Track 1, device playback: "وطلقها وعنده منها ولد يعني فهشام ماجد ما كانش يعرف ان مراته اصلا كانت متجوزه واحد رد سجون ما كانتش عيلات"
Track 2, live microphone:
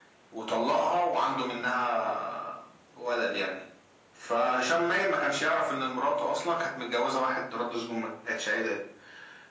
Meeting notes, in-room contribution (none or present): none